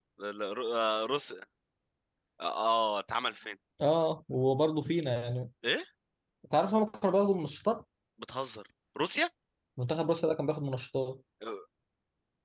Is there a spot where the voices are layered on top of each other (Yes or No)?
No